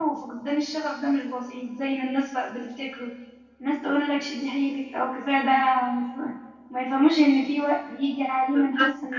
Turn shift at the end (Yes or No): No